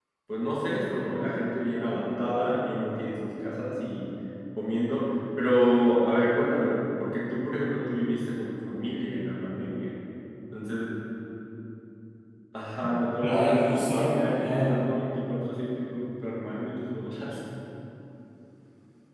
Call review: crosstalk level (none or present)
present